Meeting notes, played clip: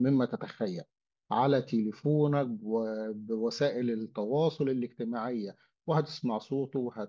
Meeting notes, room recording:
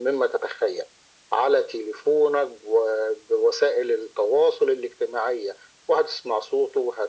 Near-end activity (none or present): none